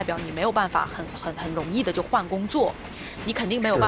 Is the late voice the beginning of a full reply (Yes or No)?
No